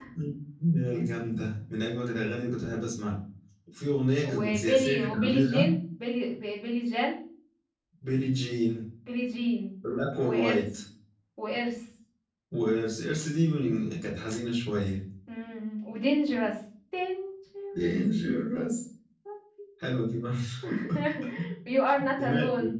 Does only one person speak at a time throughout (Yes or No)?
No